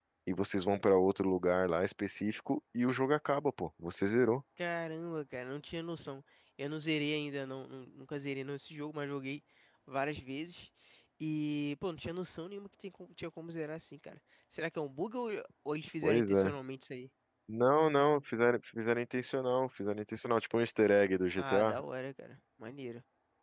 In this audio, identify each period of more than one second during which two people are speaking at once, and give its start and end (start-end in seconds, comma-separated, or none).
none